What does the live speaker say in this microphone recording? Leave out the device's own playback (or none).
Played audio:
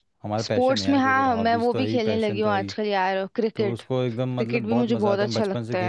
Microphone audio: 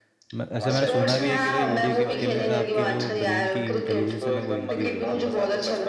मैं- ऐसे मैंने सुना भी है कि भाई वीडियो गेम्स खेलने से आपकी जो ब्रेन की इंटेलिजेंस है ना वो इंक्रीज़ होती है